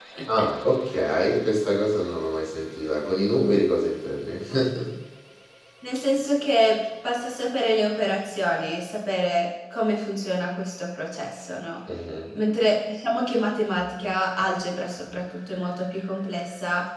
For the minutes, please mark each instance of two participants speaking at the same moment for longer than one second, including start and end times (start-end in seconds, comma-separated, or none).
none